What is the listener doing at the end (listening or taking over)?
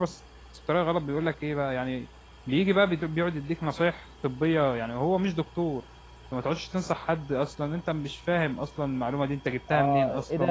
taking over